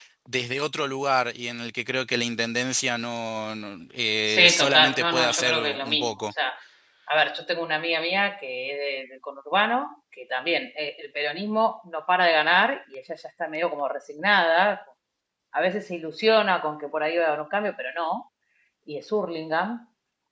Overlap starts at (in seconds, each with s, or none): 4.3 s